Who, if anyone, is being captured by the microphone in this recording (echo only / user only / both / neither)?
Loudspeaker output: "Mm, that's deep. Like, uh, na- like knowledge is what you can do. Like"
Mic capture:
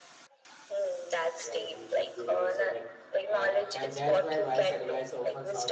both